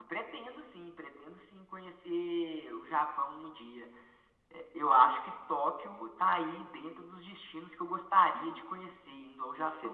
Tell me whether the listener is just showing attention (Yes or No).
No